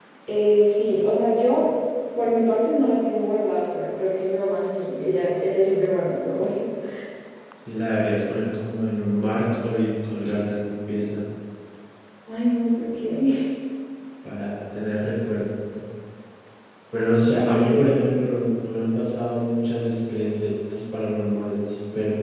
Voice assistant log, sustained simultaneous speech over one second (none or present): none